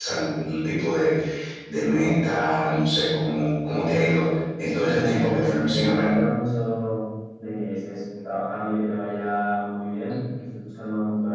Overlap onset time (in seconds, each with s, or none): 4.8 s